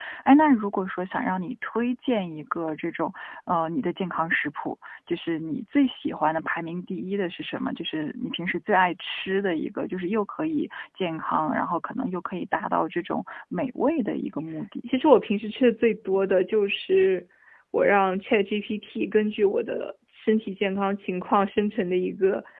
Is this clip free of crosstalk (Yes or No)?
Yes